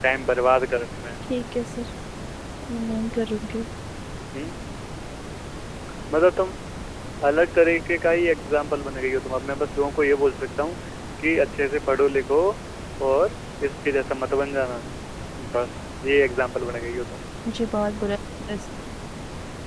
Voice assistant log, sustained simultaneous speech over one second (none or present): none